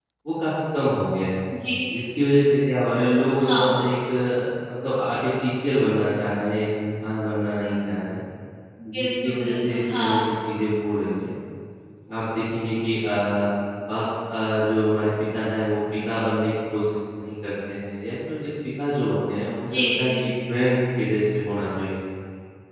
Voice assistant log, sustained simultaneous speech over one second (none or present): present